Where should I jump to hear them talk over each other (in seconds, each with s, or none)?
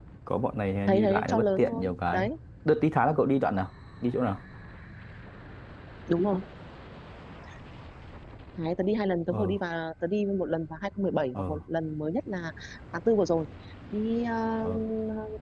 0.9 s